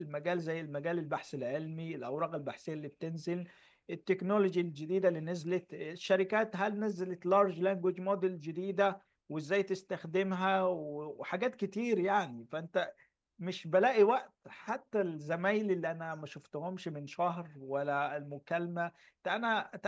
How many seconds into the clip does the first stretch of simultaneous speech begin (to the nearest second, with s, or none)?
none